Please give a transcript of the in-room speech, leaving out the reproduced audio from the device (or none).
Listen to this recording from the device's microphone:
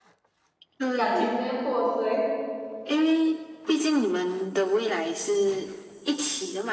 感情直接破碎。